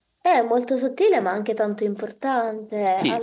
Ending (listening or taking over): taking over